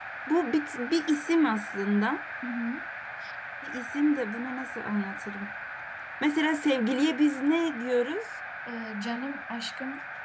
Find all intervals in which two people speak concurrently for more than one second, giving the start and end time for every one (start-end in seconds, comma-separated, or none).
none